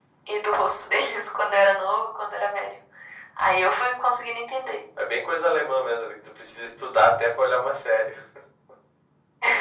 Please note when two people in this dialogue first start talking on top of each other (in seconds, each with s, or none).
none